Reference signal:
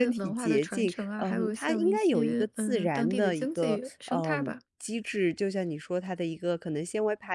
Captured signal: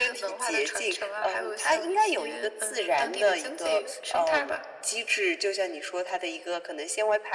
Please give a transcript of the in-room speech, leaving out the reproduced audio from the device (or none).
none